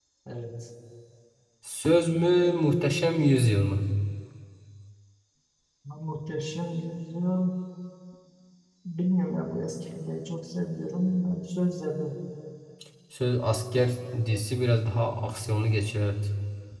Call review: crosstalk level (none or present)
none